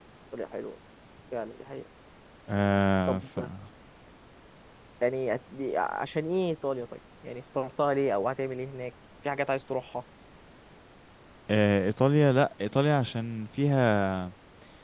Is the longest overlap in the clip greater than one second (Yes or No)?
No